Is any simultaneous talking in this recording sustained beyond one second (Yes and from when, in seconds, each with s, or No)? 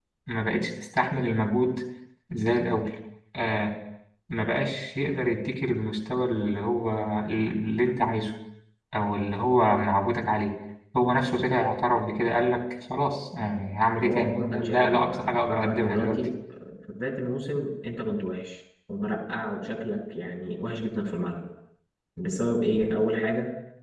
Yes, from 14.0 s